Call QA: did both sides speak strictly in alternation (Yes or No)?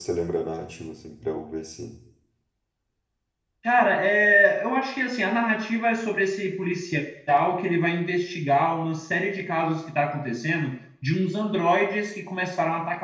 Yes